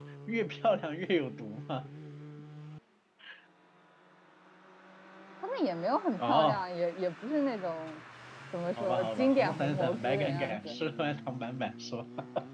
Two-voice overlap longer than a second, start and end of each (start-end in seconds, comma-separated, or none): 8.8-10.7